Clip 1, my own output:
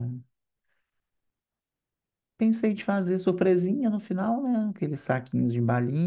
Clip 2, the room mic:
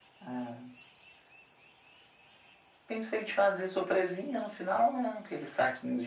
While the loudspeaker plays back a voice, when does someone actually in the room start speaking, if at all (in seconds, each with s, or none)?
none